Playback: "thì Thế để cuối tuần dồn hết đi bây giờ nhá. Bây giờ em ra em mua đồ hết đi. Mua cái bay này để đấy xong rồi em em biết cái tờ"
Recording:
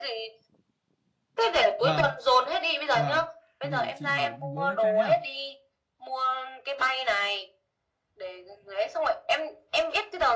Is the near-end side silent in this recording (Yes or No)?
No